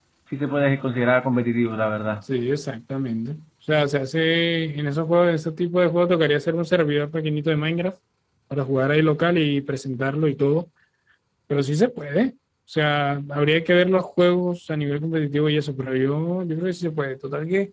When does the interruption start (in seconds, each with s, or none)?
none